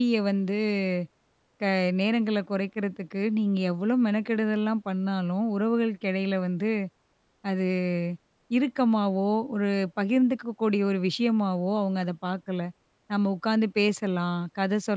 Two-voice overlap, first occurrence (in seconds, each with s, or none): none